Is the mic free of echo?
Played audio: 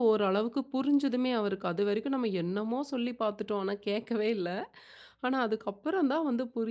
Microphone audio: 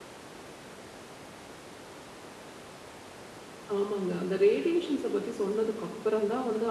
Yes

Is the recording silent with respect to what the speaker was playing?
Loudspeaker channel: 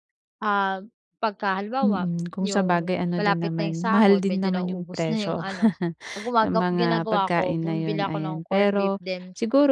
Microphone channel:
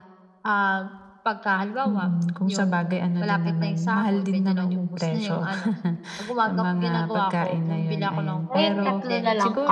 No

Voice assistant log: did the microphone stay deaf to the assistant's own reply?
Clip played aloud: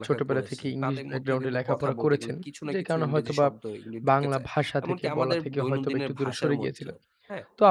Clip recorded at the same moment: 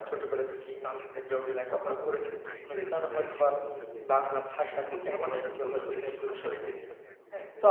No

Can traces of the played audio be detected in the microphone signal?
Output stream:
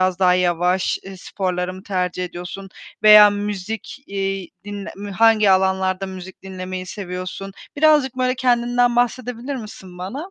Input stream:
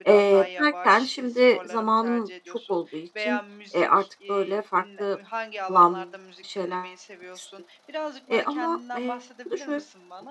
Yes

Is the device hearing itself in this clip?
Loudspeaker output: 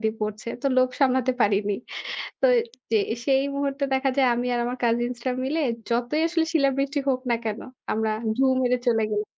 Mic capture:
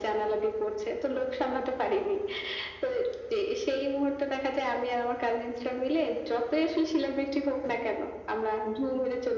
Yes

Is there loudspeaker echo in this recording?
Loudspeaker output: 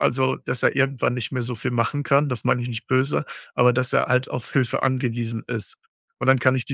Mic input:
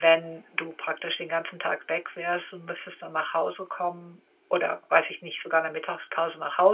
No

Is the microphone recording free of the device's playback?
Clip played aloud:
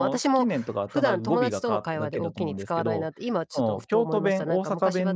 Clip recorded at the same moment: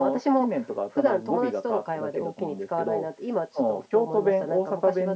No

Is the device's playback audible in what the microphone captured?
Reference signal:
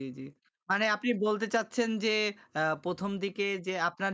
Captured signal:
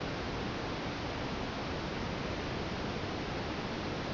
No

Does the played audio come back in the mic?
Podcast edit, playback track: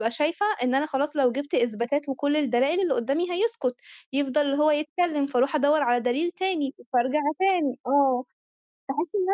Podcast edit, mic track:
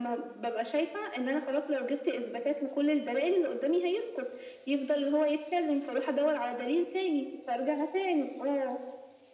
Yes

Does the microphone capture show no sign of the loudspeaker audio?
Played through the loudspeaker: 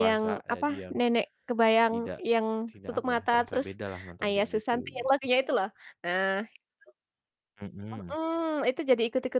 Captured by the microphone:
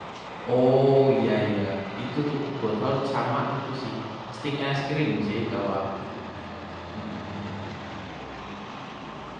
Yes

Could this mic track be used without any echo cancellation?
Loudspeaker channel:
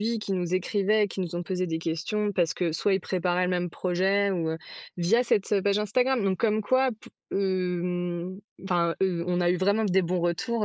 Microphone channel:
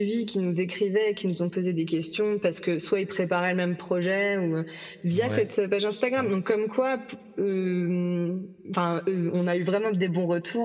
No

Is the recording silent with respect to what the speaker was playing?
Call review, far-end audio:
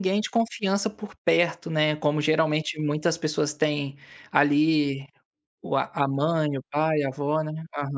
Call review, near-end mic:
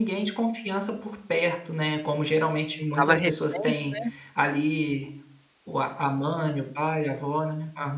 No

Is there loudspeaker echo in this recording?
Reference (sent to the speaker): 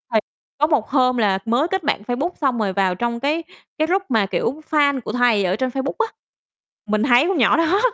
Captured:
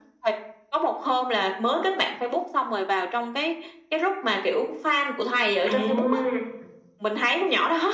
Yes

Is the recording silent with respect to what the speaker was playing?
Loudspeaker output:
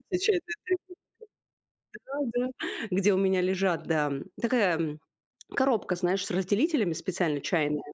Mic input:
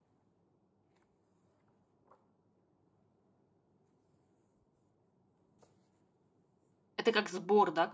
Yes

